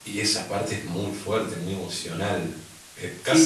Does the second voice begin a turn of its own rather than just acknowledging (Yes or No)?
Yes